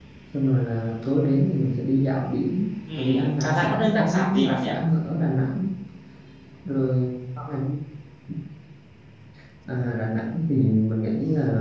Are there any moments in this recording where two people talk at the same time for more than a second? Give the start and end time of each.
3.0-4.7

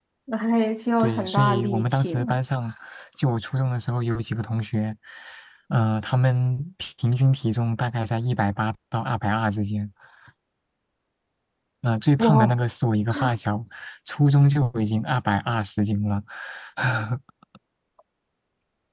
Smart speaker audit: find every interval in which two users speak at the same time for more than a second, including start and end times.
1.0-2.4

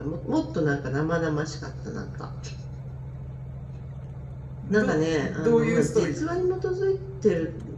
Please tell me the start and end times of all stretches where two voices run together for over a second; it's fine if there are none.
4.7-6.4

